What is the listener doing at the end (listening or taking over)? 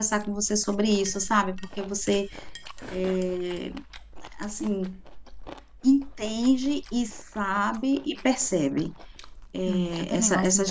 taking over